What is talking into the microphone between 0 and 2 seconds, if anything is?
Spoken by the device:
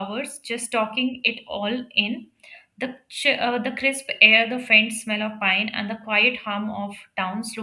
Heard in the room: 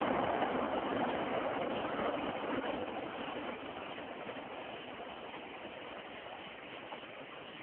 neither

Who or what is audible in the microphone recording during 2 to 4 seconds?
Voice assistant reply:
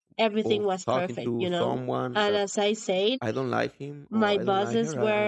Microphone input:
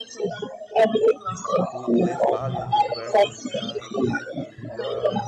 both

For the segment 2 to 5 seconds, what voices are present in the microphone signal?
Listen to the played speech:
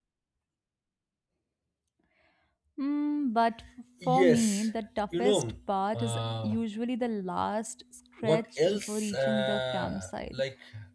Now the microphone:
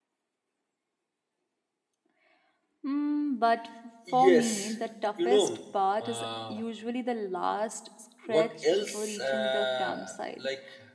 echo only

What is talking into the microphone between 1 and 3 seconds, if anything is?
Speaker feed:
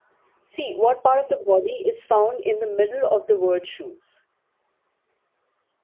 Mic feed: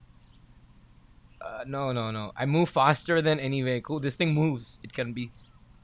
user only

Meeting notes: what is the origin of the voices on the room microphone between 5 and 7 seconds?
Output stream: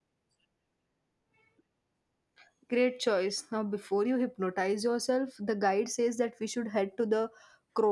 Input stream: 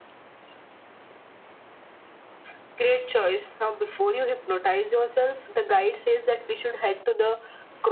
echo only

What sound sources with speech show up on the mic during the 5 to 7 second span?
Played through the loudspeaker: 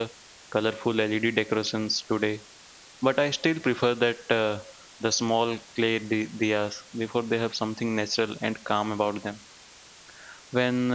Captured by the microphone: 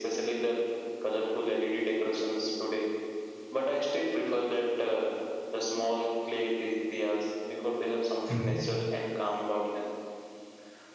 echo only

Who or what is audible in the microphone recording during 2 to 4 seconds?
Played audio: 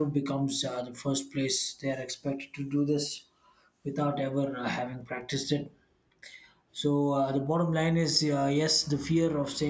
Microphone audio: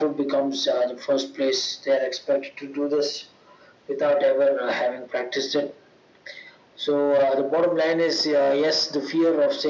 echo only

